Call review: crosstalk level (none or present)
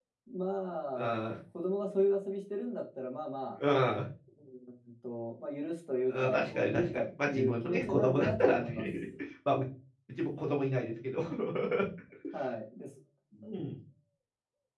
present